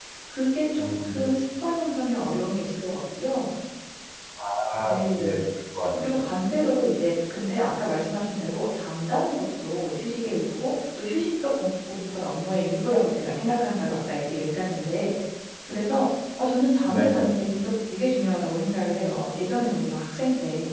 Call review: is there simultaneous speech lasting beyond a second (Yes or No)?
No